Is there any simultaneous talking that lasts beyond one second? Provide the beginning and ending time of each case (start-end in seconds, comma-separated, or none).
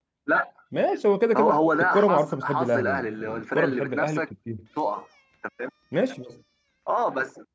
1.4-4.2